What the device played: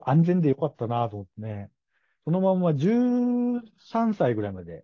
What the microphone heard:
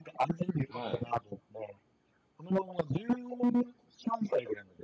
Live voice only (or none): はい。